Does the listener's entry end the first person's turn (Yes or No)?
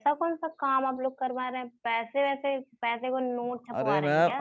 Yes